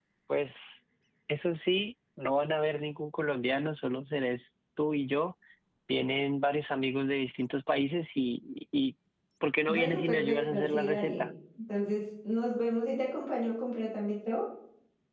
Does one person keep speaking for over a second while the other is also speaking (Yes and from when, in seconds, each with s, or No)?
Yes, from 9.7 s